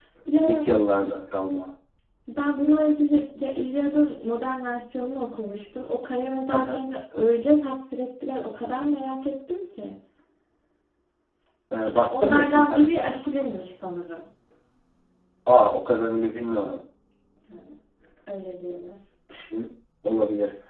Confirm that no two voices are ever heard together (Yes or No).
No